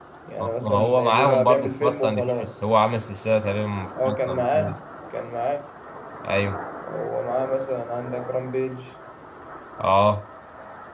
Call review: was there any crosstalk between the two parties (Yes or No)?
Yes